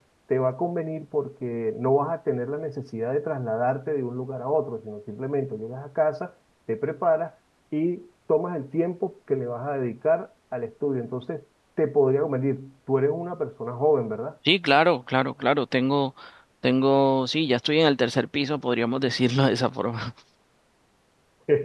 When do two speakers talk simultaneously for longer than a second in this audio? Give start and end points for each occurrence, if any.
none

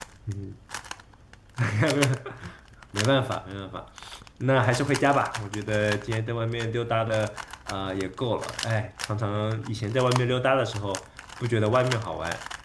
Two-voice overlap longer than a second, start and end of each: none

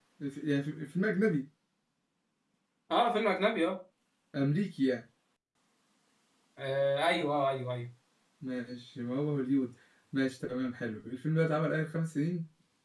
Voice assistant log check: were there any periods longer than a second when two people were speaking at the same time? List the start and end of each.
none

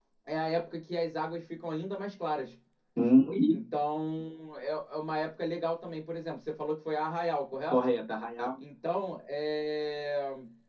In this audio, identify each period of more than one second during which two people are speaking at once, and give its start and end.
none

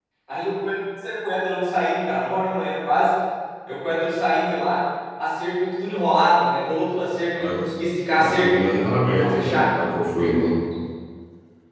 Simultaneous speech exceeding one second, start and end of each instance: none

